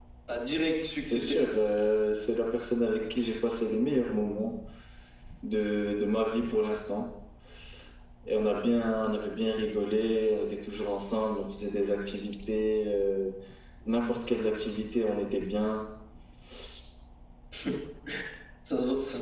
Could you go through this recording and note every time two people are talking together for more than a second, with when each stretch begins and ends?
none

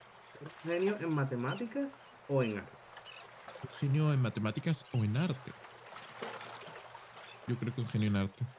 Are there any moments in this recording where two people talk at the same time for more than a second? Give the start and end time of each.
none

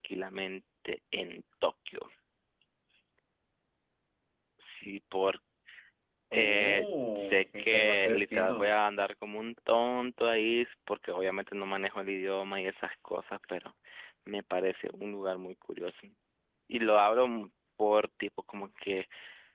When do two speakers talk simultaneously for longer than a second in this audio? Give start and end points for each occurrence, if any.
6.3-8.7

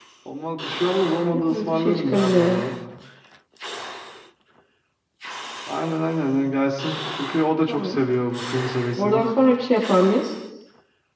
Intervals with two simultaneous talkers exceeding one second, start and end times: 1.3-2.6

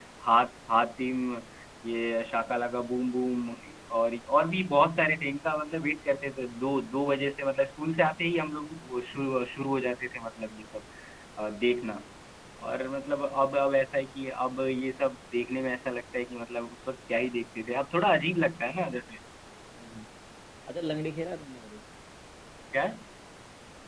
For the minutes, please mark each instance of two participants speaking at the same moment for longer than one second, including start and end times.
none

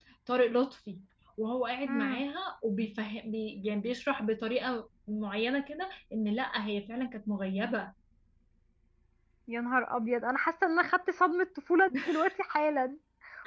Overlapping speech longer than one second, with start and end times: none

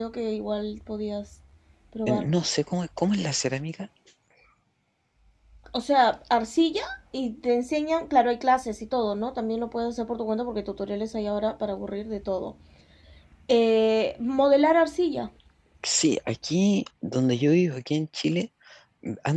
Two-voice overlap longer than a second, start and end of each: none

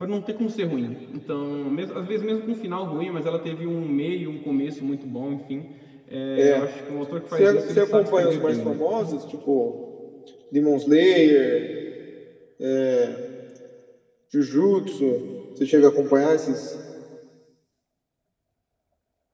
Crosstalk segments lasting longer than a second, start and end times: 7.4-8.8

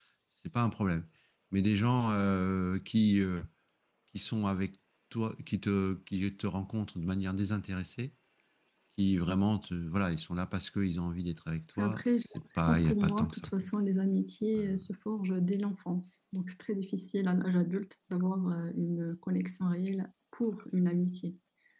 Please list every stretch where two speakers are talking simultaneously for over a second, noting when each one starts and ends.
11.8-13.5

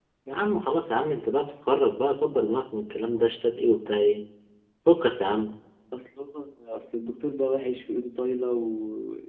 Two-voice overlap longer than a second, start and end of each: none

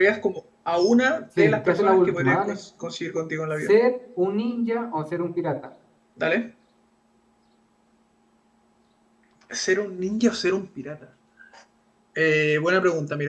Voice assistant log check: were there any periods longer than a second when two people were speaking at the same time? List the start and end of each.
1.4-2.6

